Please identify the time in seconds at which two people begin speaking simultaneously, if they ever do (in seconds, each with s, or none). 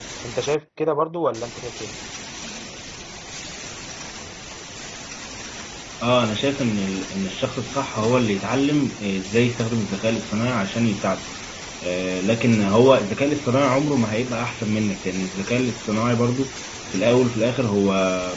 none